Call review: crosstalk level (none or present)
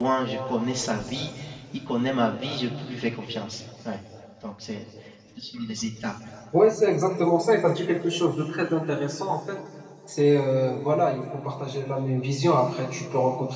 none